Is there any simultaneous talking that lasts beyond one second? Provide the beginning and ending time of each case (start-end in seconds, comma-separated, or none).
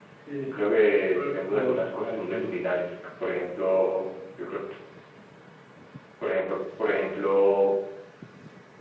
1.1-2.5